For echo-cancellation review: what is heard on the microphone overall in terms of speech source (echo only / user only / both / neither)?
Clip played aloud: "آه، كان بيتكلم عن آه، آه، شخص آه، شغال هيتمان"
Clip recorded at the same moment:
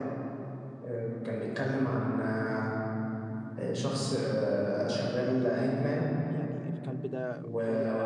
both